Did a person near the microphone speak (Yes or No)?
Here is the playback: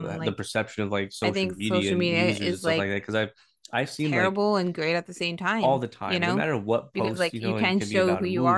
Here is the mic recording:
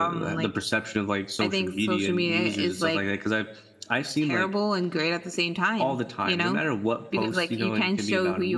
No